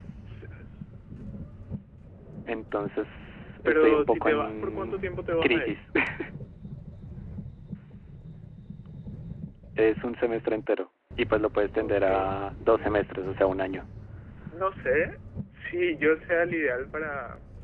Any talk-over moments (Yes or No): Yes